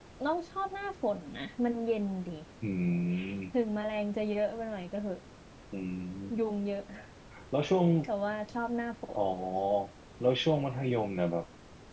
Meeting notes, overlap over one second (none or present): none